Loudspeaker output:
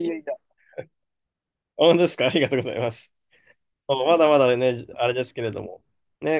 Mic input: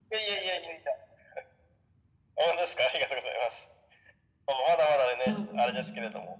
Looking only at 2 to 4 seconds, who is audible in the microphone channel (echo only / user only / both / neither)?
echo only